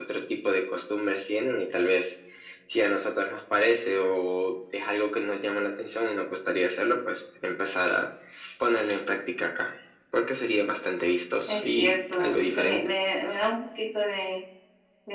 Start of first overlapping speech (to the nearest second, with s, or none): 11 s